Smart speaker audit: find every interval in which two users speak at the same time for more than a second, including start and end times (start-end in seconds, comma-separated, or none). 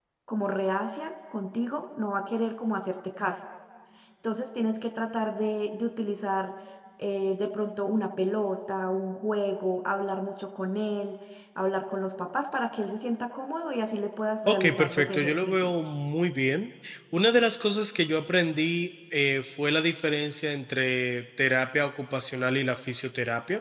14.5-15.7